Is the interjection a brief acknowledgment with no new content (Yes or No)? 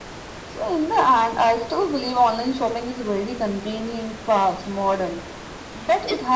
Yes